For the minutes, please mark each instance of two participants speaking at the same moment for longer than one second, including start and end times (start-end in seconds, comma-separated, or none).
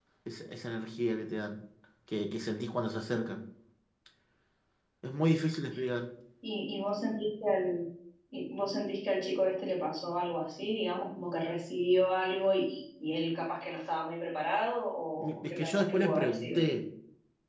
15.2-16.6